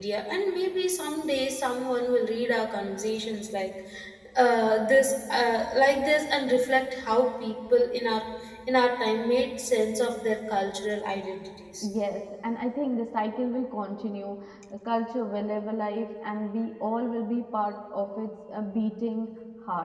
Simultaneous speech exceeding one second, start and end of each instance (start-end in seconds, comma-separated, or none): none